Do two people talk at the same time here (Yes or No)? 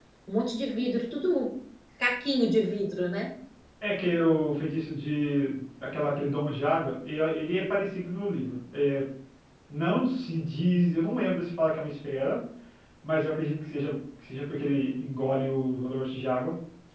No